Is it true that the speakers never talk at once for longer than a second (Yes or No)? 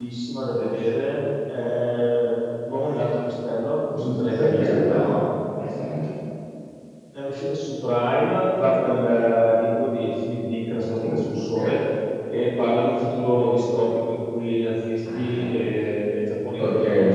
No